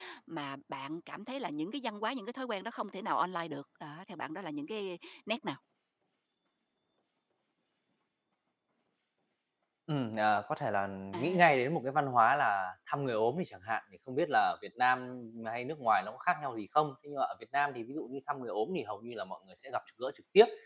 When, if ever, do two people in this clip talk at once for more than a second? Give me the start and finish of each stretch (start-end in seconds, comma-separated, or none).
none